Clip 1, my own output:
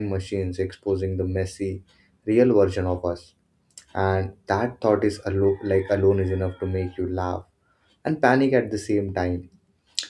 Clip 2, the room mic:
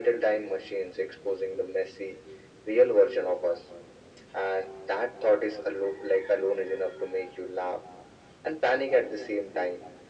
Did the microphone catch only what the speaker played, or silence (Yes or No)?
Yes